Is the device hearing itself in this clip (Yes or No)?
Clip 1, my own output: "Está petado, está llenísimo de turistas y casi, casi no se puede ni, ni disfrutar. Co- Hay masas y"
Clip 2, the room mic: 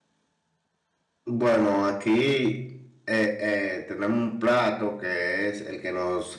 No